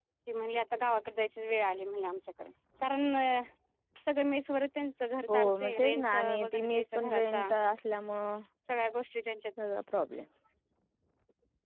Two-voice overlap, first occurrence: 5 s

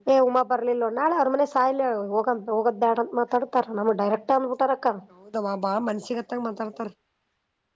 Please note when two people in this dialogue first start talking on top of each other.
none

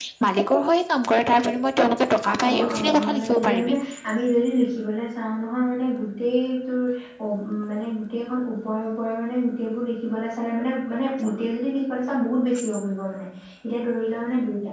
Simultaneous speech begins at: 2 s

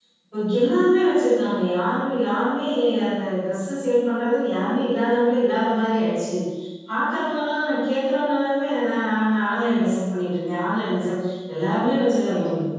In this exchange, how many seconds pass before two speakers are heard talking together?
none

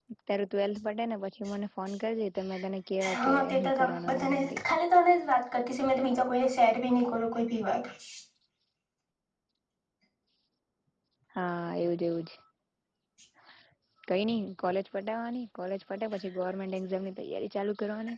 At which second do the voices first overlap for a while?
3 s

